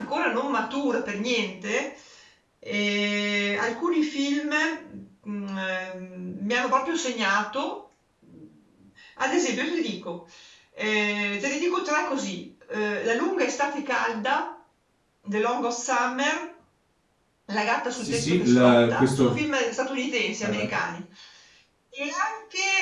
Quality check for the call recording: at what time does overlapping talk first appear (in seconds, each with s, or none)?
18.0 s